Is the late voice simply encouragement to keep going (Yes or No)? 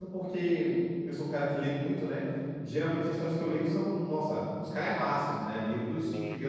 Yes